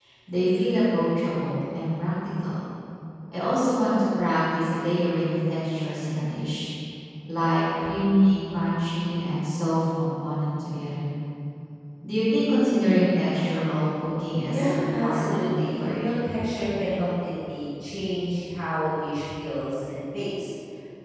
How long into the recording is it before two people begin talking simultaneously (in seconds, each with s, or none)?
14.5 s